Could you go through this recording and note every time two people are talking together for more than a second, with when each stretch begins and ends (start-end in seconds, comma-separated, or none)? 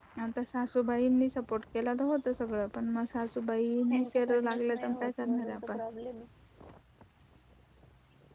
3.9-5.8